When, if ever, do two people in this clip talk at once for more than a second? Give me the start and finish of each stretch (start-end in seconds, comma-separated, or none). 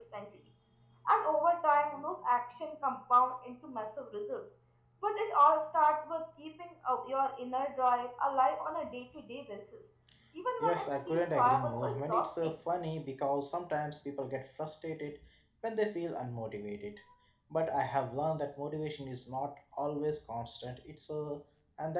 10.6-12.5